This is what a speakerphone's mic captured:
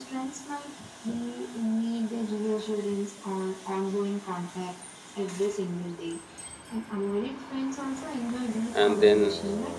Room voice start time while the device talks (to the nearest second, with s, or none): 9 s